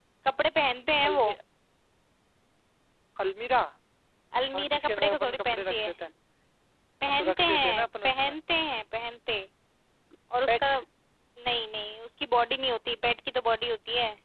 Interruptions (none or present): present